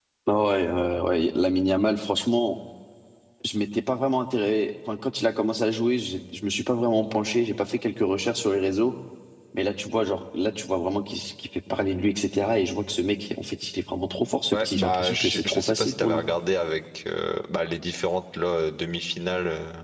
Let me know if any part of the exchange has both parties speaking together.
Yes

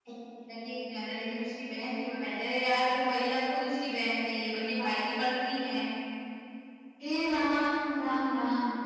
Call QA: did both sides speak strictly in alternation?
Yes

